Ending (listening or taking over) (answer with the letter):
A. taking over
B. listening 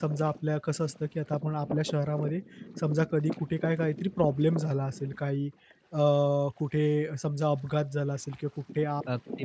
B